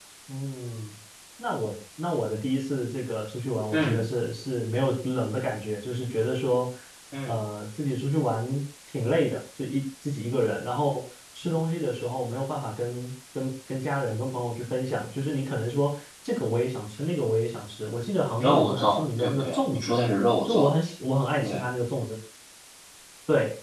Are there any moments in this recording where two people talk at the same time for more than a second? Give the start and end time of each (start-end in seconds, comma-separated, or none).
18.4-19.9